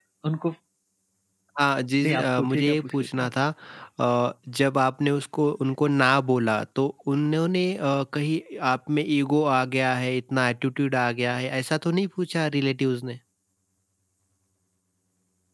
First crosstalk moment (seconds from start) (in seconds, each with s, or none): 2.0 s